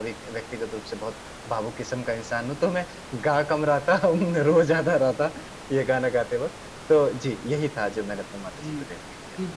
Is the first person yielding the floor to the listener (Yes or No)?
Yes